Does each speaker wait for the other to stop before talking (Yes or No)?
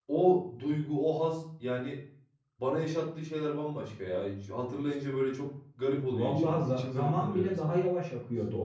No